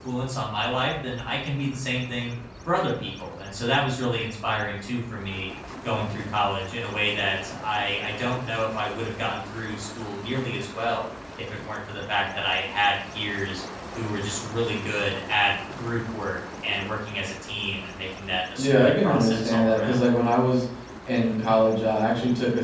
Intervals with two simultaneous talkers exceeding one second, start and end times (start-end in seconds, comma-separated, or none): 18.6-20.0